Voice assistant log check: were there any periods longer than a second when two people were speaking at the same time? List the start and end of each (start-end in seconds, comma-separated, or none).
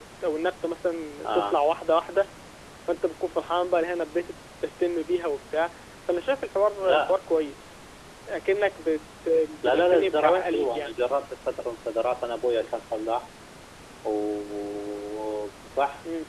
9.6-11.0